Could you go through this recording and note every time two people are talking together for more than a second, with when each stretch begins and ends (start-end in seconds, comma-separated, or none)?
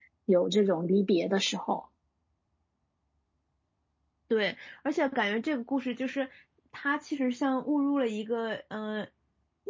none